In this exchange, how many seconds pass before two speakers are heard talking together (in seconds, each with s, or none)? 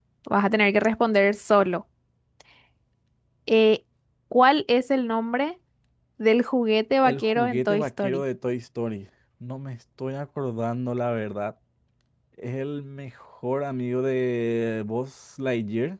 7.0 s